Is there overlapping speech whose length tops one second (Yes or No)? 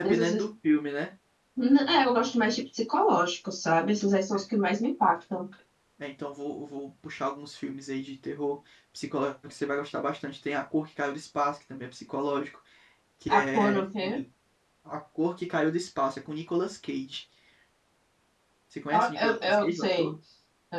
Yes